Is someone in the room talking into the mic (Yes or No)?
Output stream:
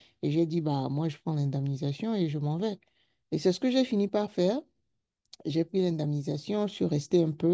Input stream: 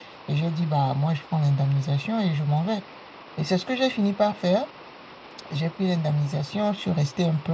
No